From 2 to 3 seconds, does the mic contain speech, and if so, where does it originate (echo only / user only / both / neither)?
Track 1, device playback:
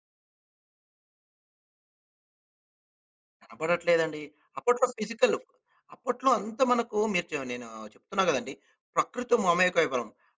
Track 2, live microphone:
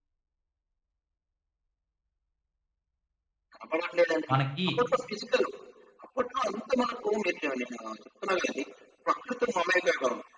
neither